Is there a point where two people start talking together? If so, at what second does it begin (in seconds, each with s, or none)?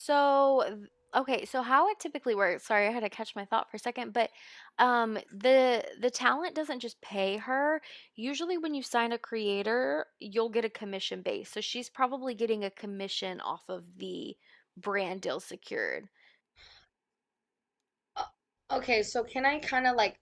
none